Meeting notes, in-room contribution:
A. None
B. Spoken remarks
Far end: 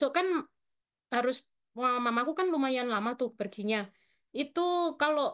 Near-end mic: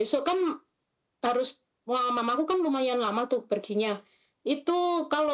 A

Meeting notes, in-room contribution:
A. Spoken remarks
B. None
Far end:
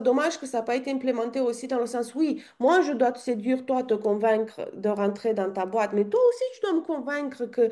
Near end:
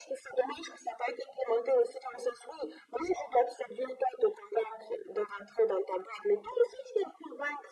B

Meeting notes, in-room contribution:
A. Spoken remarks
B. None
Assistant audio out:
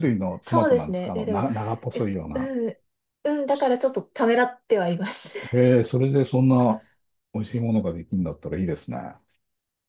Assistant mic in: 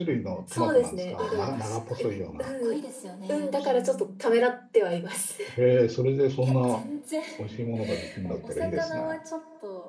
A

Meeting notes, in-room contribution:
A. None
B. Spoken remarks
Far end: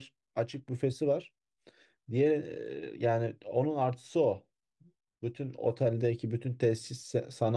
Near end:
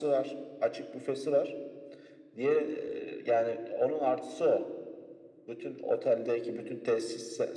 A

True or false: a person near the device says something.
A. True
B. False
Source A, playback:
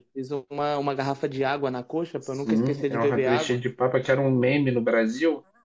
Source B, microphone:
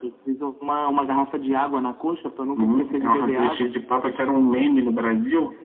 B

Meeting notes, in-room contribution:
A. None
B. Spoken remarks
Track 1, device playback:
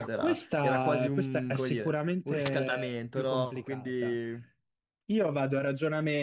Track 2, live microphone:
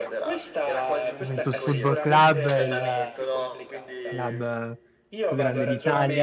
B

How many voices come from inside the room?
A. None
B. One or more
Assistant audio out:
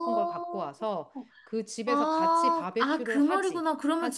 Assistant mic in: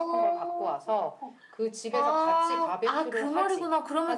A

